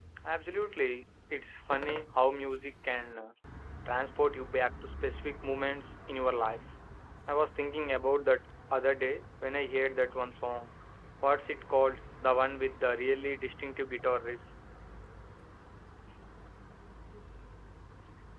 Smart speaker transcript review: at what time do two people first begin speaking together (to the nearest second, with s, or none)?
none